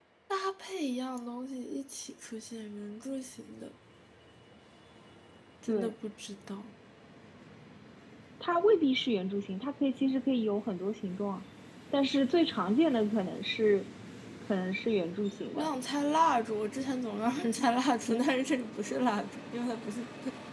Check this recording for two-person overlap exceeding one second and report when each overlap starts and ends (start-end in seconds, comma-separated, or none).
none